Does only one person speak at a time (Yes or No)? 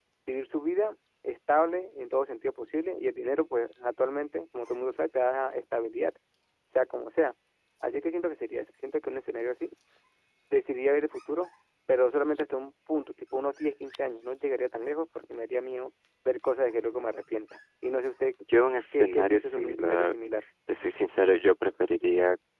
No